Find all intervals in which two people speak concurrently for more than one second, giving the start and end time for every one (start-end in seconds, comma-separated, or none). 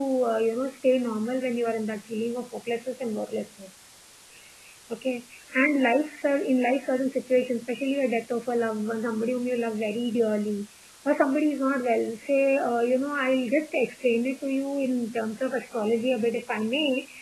none